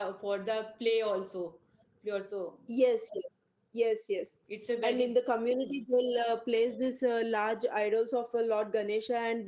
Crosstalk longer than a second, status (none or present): none